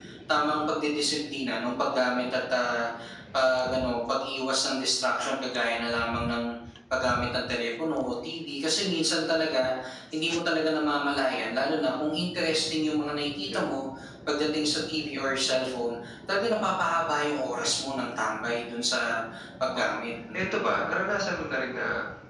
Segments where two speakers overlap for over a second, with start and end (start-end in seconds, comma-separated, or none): none